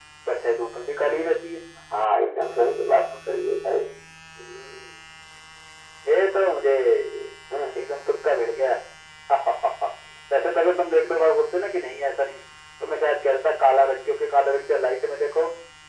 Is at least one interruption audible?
No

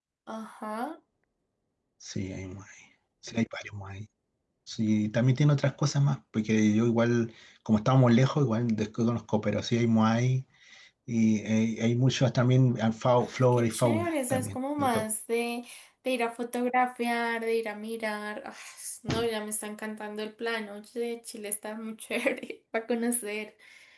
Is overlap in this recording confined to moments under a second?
No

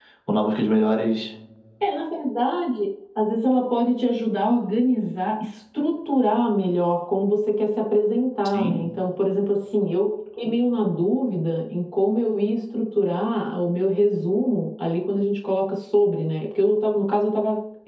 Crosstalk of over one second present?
No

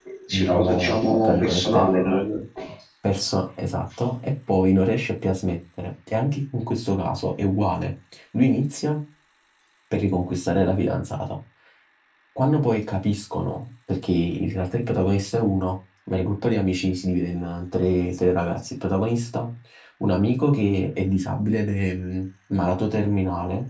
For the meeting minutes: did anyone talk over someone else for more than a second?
Yes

